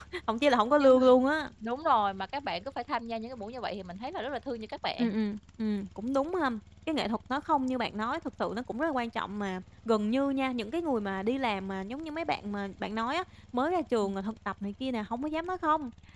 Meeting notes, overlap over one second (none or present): none